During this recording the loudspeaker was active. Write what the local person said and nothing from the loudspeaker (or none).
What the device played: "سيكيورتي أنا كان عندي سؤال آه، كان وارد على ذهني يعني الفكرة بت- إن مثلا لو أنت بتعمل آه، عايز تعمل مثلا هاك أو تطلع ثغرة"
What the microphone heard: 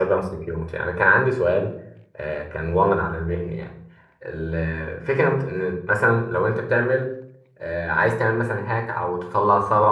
none